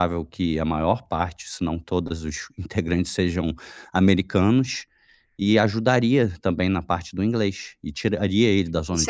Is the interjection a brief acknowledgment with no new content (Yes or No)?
No